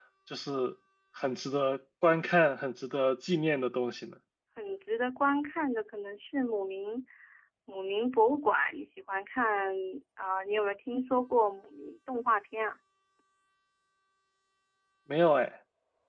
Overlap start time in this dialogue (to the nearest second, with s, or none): none